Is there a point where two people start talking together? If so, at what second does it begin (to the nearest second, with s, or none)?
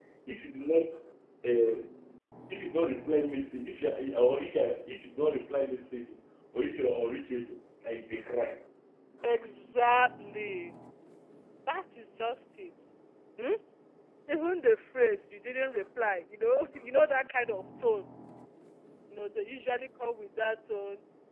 none